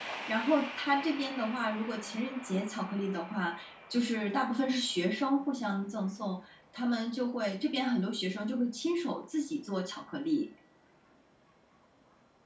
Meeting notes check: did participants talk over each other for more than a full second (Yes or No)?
No